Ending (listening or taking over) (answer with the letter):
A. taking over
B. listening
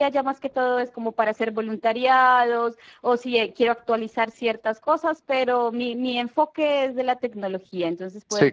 A